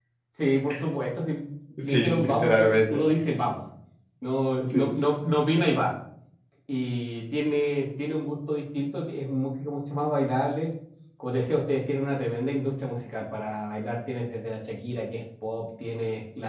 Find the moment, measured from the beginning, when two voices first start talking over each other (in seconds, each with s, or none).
1.8 s